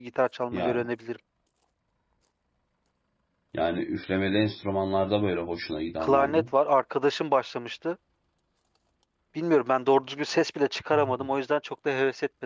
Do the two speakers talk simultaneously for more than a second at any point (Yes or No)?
No